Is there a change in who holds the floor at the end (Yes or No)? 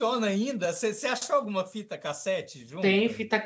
Yes